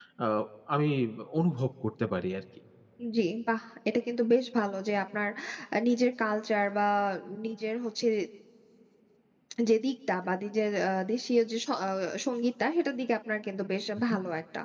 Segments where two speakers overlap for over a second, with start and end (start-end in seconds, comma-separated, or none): none